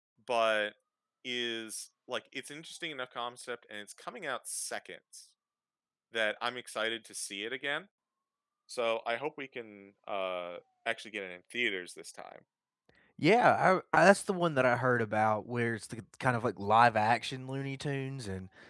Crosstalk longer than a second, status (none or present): none